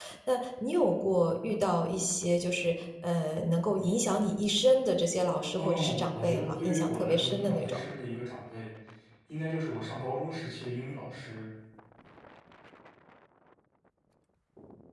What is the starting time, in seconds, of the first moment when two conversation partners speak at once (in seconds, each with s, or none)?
5.6 s